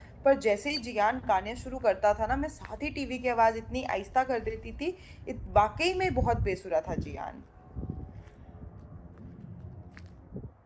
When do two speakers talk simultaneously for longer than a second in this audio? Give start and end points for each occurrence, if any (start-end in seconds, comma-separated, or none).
none